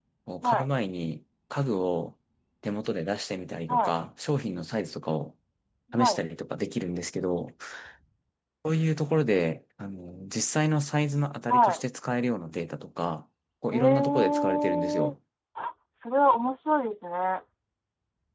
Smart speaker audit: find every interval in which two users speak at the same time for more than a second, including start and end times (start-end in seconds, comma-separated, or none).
13.7-15.1